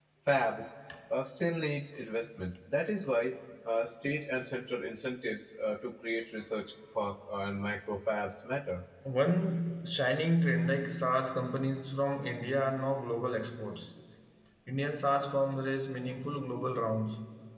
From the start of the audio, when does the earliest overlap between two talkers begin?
none

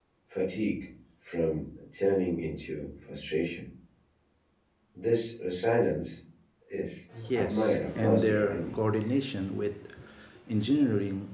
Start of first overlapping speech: 7.4 s

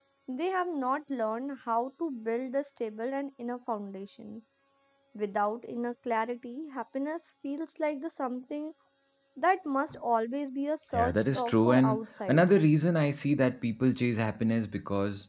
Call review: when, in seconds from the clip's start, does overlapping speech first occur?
10.9 s

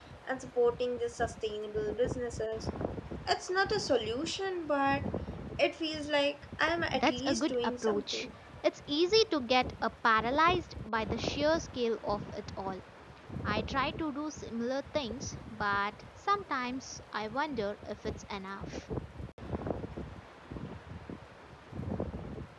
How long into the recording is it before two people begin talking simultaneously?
6.9 s

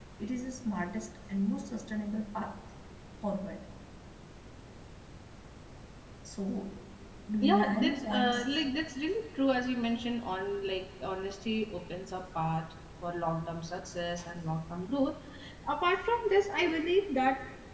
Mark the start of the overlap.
7.4 s

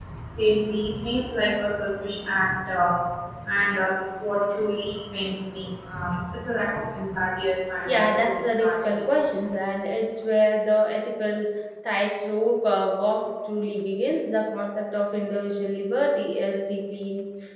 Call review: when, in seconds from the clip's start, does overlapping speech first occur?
7.8 s

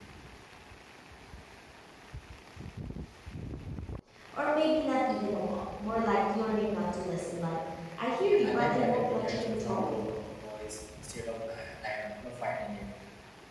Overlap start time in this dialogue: 8.2 s

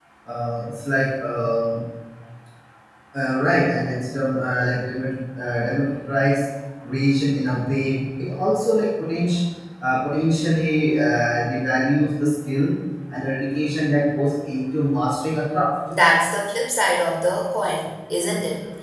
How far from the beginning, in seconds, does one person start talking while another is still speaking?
none

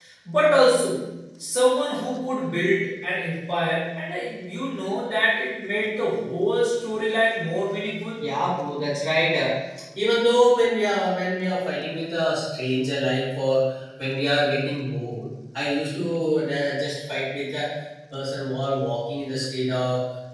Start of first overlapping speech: none

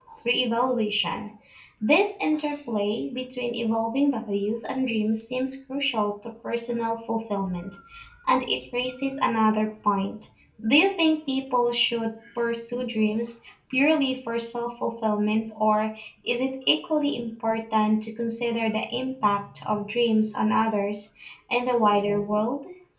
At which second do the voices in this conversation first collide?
none

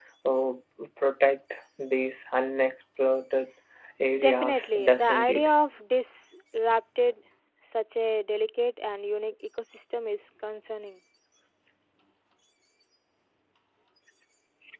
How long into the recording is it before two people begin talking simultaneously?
4.2 s

